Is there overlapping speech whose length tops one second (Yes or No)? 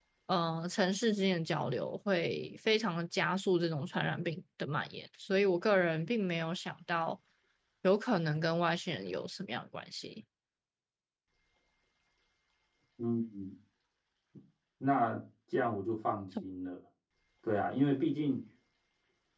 No